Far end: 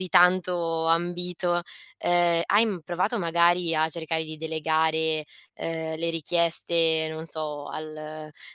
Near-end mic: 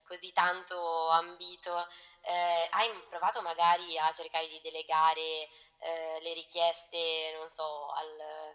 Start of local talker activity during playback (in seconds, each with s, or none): none